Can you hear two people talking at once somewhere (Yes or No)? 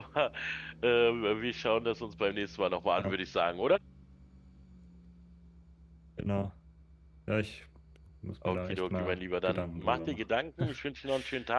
Yes